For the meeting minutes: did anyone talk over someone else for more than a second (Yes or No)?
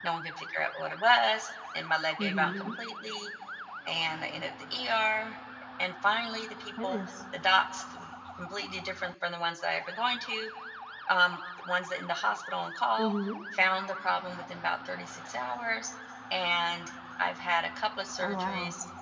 No